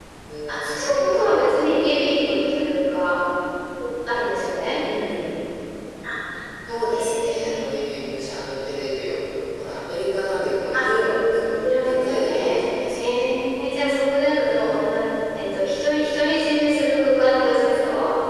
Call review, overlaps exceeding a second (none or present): present